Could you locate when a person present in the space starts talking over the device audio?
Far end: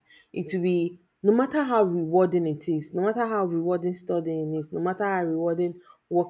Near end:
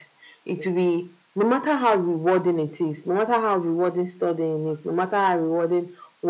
none

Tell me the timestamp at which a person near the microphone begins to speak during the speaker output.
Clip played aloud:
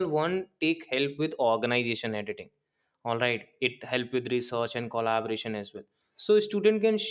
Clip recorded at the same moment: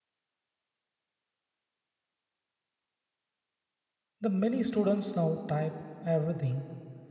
4.2 s

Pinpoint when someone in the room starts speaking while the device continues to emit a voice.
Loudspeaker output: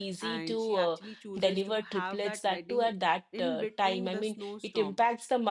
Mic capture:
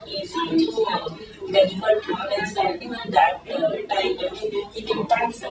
none

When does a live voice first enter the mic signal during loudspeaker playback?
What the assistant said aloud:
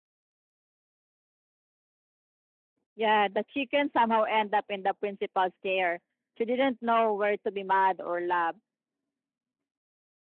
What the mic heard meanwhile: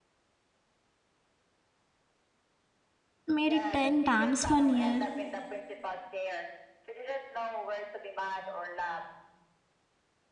3.3 s

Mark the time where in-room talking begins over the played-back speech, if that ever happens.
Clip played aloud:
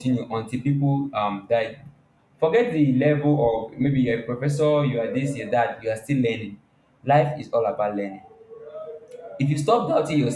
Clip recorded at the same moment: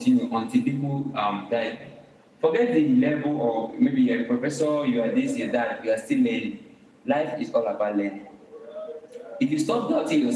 none

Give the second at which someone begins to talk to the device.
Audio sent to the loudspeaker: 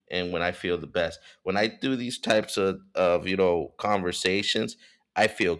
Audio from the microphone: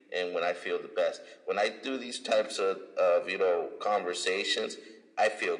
none

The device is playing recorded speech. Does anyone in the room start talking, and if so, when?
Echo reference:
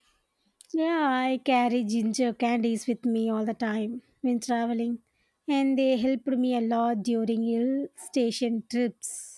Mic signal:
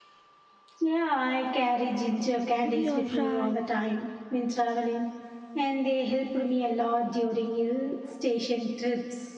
2.6 s

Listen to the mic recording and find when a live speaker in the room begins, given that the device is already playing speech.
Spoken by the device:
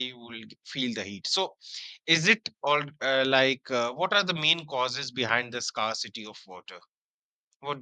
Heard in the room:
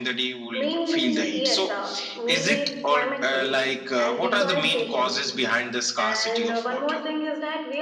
0.5 s

